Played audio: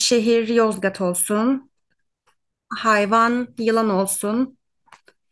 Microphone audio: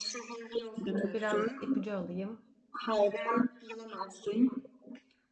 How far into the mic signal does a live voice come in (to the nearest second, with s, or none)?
1 s